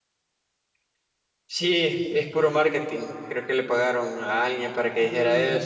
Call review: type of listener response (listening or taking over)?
taking over